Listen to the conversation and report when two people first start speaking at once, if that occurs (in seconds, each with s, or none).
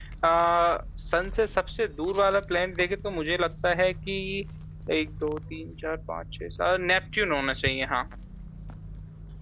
none